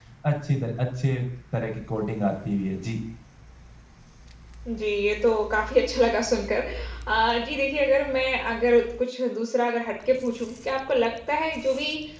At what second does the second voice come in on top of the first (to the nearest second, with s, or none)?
none